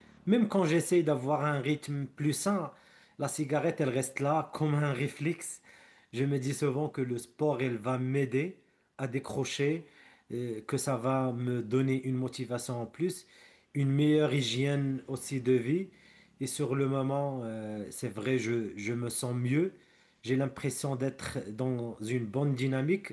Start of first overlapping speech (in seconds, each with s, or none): none